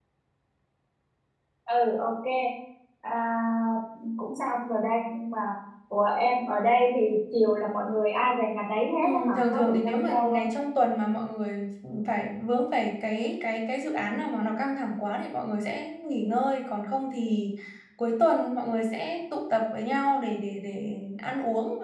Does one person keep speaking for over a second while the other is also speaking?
Yes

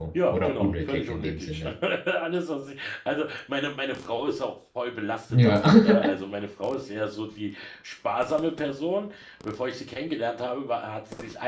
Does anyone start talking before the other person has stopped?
Yes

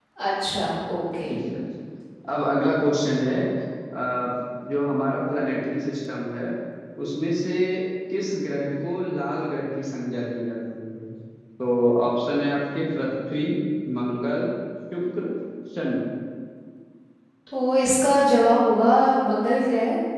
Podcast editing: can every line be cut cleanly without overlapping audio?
Yes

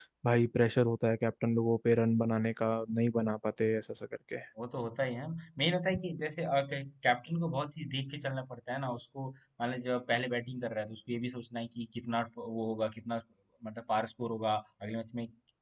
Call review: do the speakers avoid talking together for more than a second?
Yes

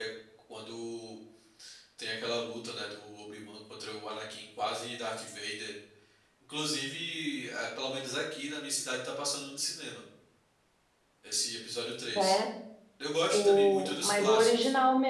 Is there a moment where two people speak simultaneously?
Yes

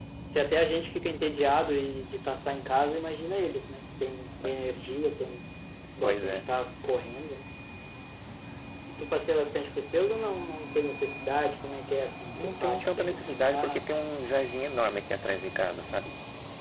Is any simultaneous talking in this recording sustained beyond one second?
Yes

